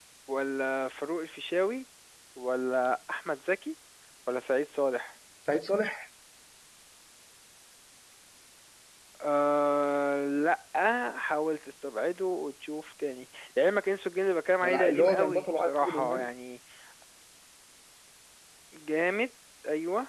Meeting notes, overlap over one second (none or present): present